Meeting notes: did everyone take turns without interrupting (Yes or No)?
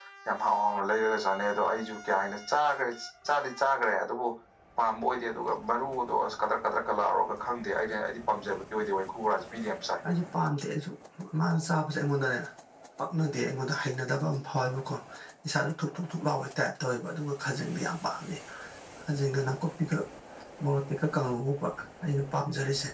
Yes